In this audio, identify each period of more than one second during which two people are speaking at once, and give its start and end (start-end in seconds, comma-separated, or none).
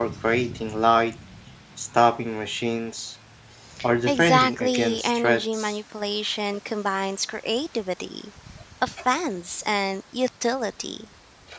4.1-5.7